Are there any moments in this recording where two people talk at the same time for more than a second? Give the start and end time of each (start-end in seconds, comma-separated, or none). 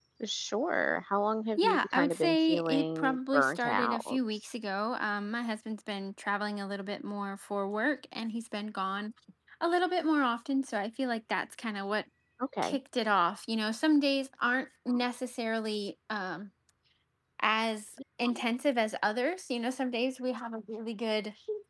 1.6-4.2